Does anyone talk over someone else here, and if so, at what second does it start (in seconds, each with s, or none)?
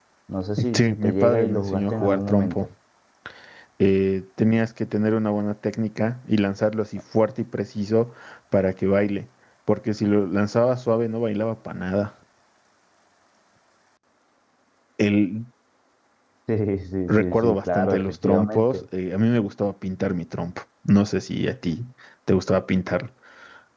0.7 s